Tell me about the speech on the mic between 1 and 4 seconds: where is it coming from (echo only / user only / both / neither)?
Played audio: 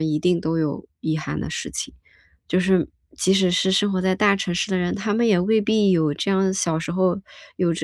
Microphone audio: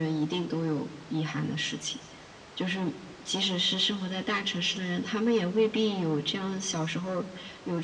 echo only